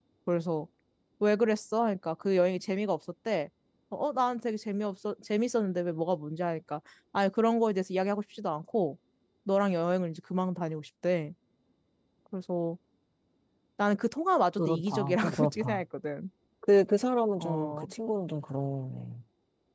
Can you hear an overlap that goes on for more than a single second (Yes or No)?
Yes